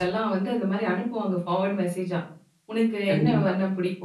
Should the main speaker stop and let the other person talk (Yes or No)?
No